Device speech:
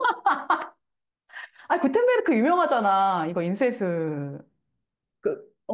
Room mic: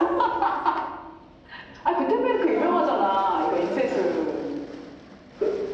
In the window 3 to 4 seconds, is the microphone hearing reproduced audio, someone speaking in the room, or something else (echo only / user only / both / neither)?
both